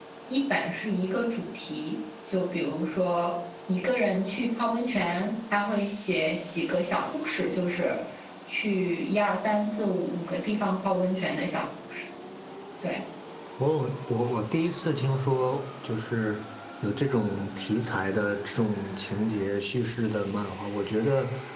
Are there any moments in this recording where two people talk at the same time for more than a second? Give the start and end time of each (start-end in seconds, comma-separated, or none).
none